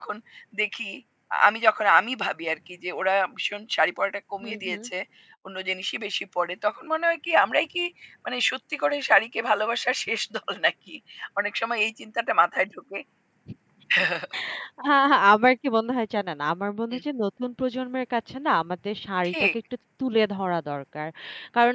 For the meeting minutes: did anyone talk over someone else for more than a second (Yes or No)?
No